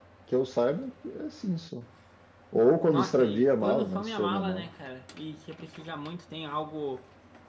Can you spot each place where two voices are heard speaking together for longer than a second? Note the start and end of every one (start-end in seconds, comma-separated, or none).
2.9-4.7